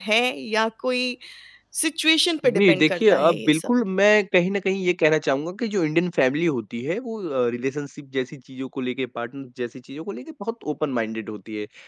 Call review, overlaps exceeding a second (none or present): present